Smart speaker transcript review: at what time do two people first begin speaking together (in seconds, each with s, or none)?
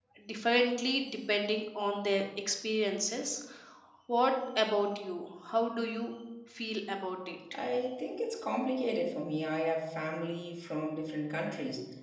none